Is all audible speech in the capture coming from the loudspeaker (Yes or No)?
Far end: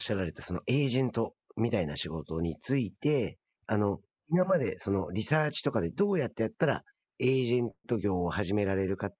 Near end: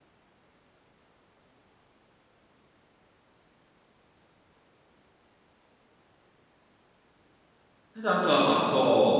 No